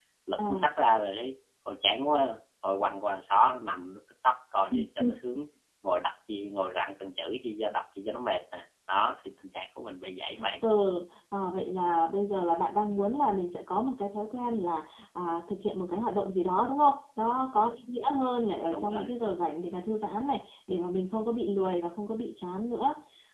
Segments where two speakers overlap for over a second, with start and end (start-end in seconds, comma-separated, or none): none